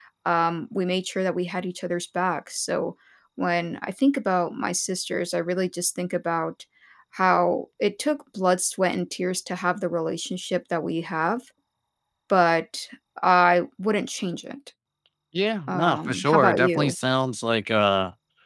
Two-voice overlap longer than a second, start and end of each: 15.7-16.9

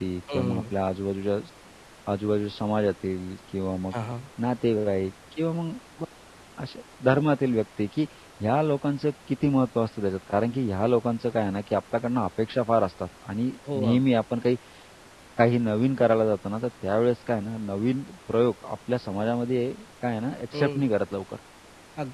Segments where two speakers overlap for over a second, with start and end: none

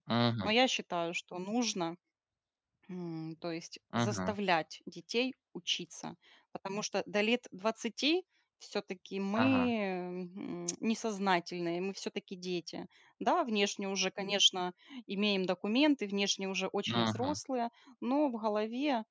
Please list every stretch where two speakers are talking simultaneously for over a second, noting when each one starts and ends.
none

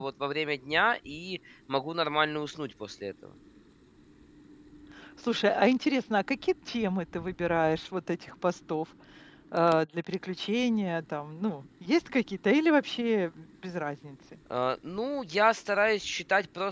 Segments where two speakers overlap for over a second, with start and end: none

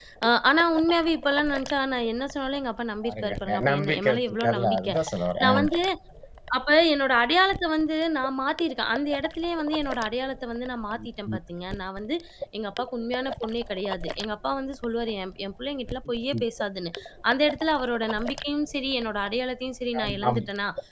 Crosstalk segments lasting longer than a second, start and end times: 3.0-4.9

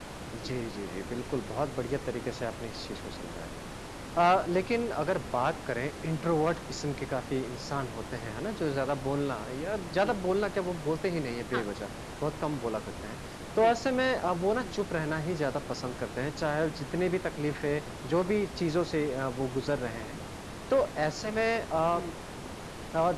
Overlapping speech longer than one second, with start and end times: none

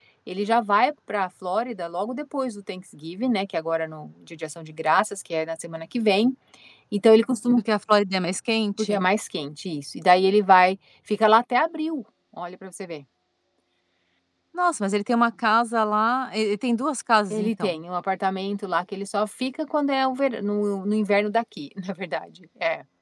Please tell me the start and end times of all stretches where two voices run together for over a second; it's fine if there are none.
none

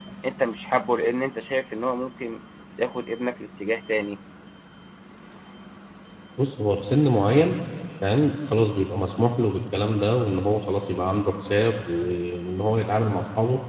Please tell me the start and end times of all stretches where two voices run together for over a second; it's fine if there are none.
none

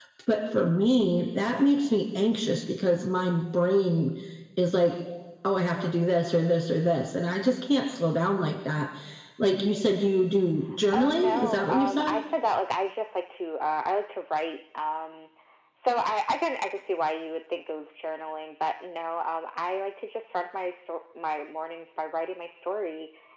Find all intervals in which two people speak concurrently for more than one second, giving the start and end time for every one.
10.9-12.2

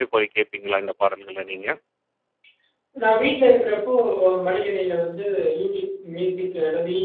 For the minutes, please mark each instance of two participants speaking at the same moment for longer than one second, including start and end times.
none

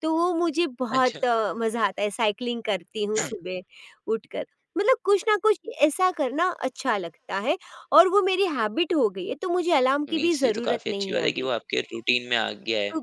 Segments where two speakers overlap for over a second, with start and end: 10.1-11.5

